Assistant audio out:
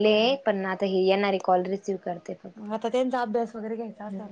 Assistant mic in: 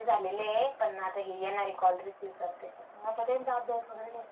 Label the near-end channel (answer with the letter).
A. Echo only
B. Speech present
A